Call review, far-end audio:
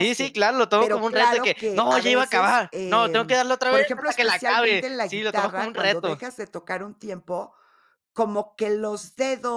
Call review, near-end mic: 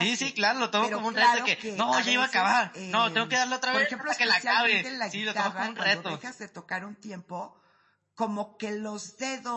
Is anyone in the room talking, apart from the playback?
No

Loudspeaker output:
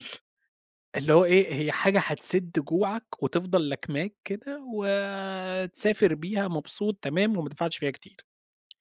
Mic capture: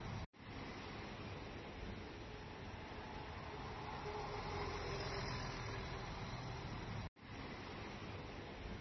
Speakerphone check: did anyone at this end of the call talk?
No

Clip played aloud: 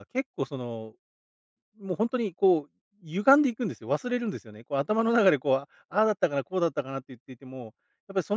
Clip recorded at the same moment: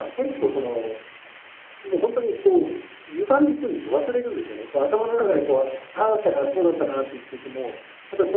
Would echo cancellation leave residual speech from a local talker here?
No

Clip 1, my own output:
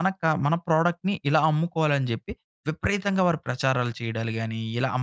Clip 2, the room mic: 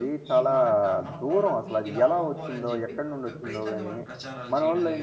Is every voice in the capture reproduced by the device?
No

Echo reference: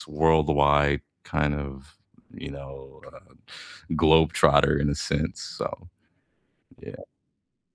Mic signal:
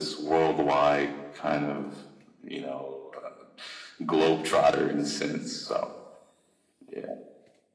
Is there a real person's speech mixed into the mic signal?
No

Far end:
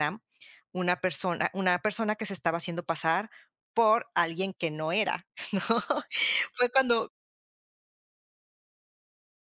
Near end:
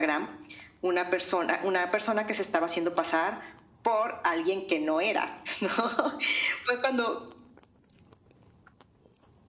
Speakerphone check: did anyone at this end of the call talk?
No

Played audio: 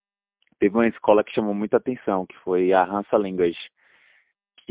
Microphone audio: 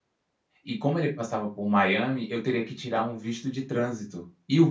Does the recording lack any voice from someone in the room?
No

